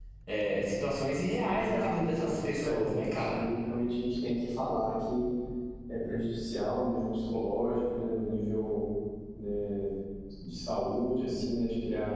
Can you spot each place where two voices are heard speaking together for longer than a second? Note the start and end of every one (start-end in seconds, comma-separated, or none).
1.5-3.5